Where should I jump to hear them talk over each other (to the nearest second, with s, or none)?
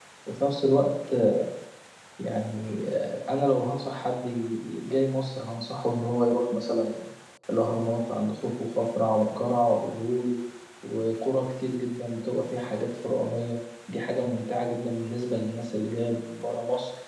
none